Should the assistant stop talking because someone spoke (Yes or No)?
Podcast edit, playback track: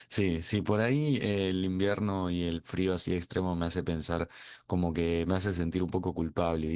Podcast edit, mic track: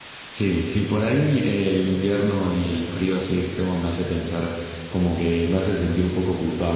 No